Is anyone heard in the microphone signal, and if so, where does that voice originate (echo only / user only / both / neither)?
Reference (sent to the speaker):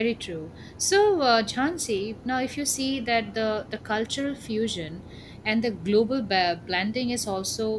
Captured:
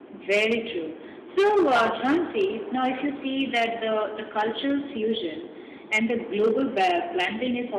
both